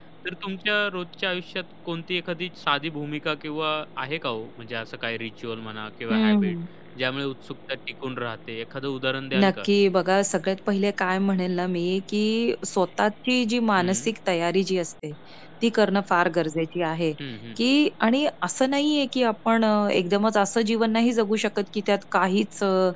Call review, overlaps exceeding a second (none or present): none